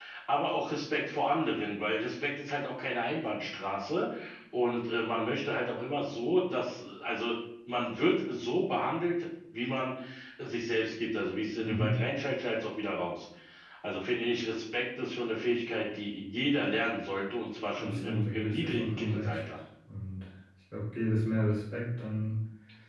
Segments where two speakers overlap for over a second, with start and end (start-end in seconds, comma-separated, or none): 17.8-19.4